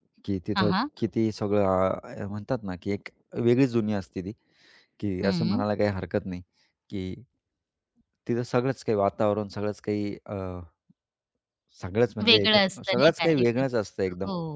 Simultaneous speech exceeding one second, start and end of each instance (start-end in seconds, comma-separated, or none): 12.2-13.4